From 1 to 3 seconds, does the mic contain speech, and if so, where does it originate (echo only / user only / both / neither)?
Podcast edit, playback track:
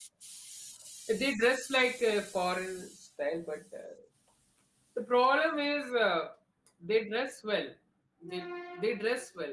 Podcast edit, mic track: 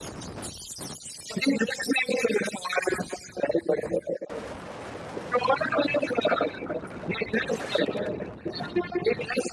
echo only